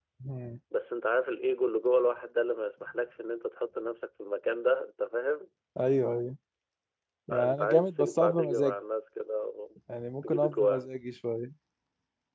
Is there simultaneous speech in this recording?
Yes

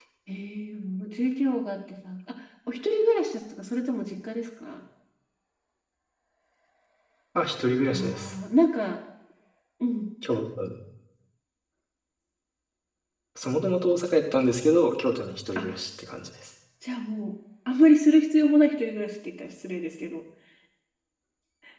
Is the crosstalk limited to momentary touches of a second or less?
Yes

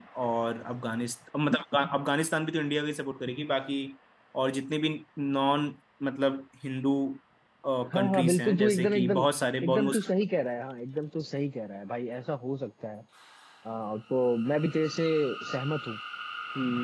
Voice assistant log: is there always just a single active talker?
No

